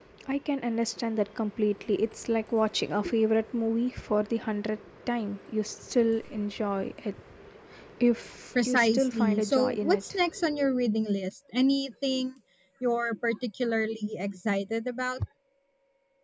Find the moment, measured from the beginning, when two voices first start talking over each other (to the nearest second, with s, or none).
9 s